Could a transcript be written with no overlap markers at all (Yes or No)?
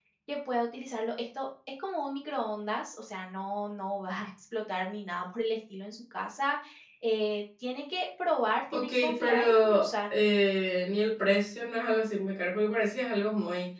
No